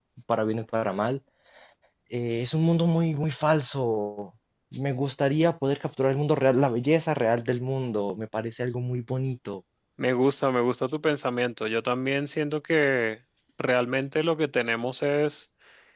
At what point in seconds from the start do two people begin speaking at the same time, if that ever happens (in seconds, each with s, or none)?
none